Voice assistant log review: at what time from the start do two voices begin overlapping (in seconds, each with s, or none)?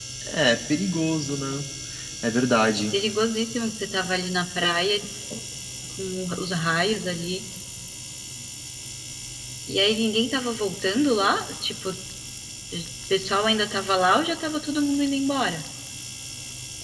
none